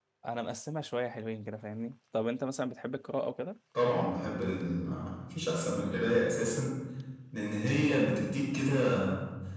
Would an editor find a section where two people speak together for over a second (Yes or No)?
No